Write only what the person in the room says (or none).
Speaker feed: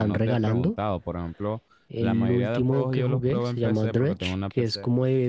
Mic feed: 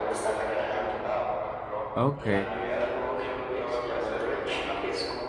Ok,